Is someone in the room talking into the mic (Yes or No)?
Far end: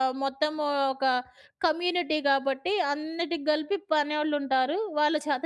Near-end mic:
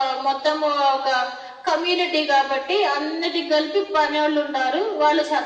No